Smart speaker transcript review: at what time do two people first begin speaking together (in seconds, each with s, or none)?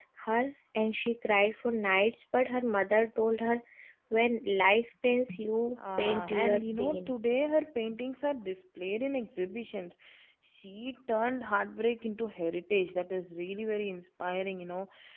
5.8 s